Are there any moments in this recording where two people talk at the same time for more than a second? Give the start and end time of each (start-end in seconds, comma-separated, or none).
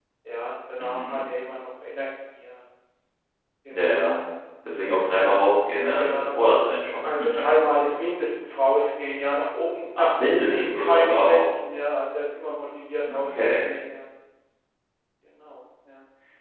10.0-11.5